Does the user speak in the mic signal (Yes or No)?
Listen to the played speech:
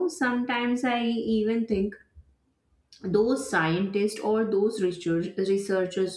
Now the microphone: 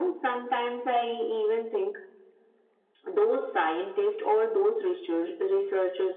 No